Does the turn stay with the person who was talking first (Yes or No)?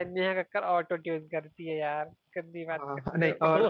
No